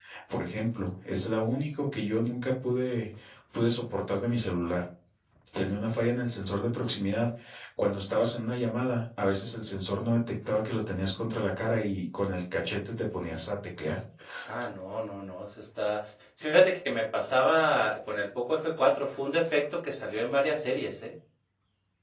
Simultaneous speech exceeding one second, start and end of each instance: none

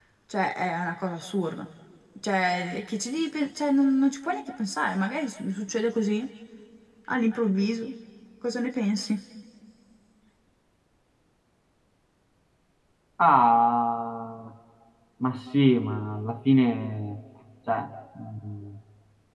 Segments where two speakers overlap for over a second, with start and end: none

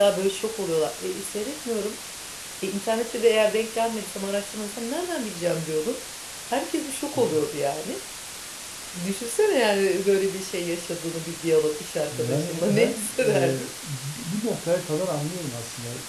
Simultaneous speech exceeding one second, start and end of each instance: 12.1-13.7

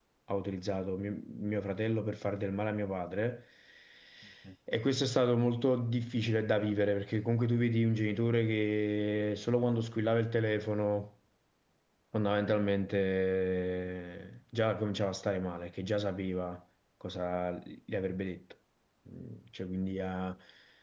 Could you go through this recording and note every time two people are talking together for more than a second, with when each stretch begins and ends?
none

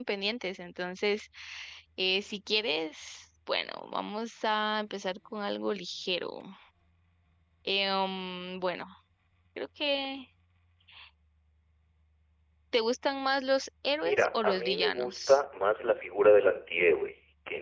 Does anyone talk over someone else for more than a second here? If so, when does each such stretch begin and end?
14.0-15.4

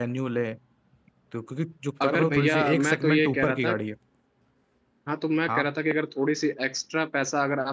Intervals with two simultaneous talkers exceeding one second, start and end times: 2.0-3.7

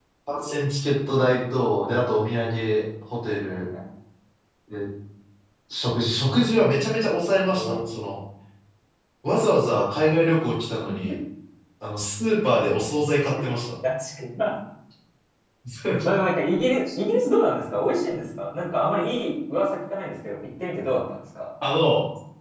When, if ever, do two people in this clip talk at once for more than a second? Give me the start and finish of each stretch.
none

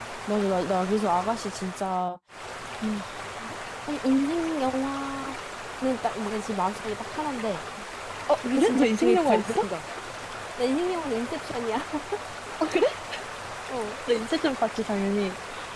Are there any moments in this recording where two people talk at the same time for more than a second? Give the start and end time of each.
8.4-9.7

